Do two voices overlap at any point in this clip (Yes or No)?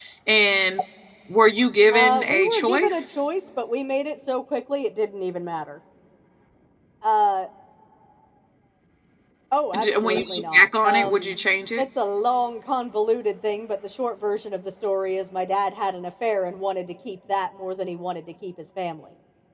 Yes